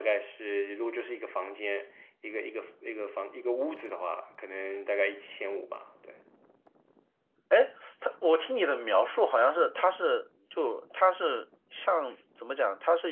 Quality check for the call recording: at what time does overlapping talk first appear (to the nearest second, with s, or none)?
none